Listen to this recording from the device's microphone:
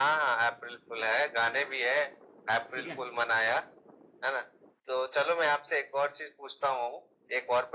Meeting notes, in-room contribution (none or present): present